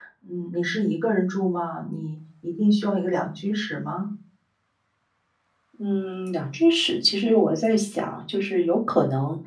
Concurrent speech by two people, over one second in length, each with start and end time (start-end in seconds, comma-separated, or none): none